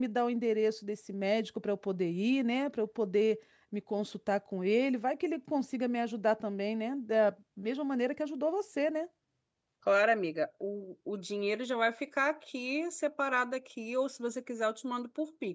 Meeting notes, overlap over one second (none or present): none